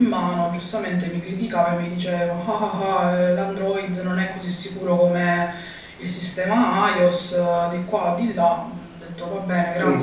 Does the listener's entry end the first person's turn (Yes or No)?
Yes